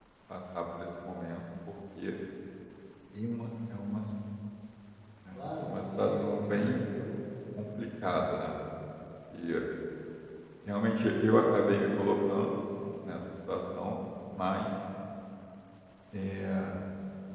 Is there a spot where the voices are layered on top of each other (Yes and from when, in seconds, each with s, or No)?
Yes, from 5.3 s